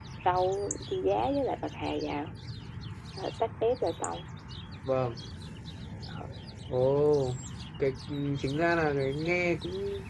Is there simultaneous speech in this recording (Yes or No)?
No